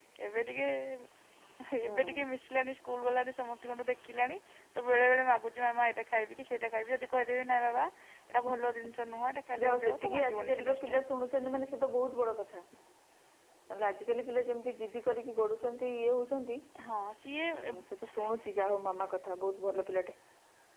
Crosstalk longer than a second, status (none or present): present